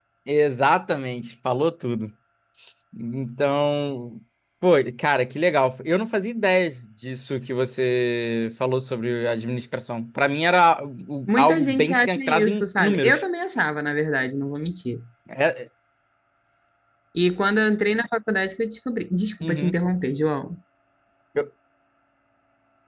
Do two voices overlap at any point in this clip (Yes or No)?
Yes